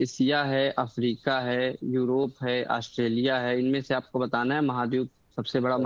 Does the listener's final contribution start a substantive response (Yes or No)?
Yes